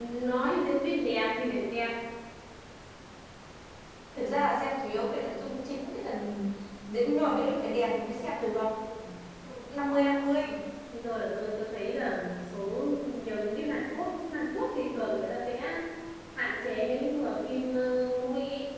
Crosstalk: none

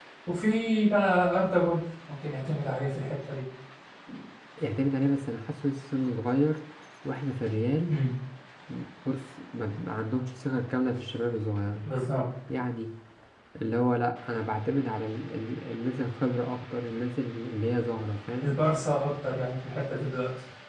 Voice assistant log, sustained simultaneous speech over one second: none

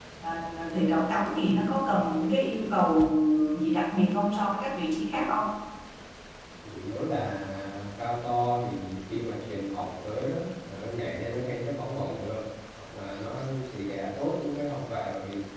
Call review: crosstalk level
none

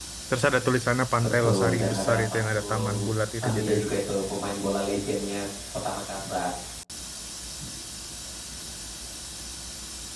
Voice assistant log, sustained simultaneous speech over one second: present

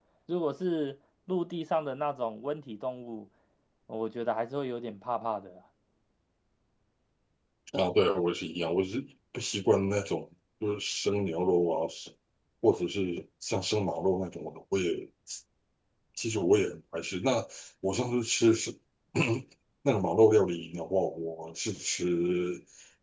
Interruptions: none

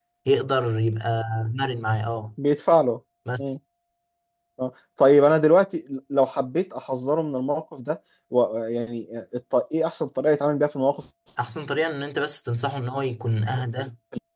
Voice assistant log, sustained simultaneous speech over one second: none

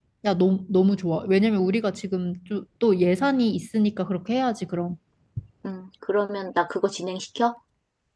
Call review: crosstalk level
none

